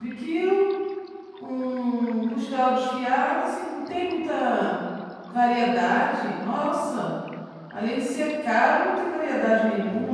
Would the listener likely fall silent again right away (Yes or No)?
No